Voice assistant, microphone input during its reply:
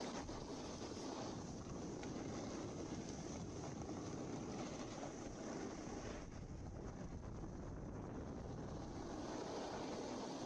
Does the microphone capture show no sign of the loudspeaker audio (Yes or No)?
Yes